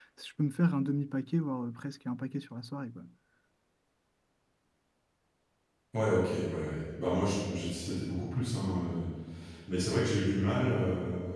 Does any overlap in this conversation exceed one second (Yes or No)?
No